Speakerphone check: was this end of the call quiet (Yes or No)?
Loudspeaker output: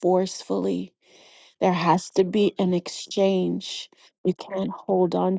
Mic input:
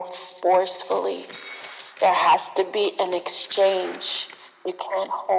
Yes